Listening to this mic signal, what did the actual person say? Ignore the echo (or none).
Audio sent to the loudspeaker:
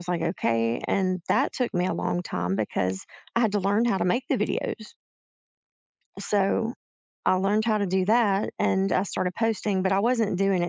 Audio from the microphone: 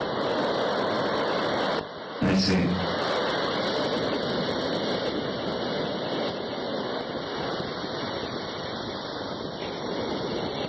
I see.